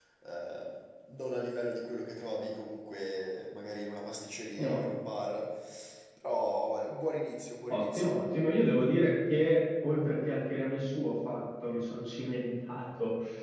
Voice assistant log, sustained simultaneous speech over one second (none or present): none